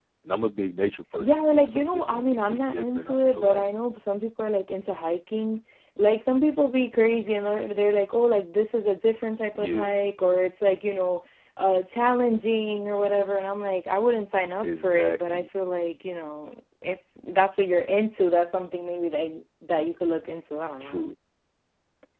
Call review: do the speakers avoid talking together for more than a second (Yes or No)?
No